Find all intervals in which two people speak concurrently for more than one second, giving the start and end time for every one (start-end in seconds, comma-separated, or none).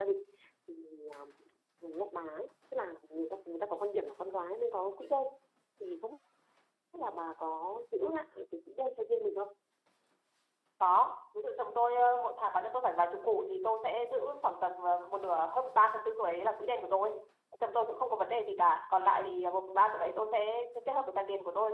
none